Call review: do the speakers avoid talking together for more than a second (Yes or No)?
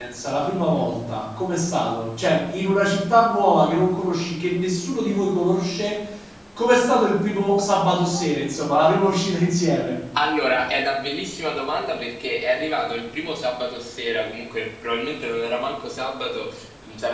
Yes